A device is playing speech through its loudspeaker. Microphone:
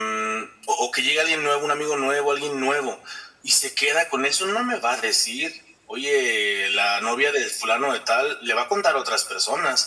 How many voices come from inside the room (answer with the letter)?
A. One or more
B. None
B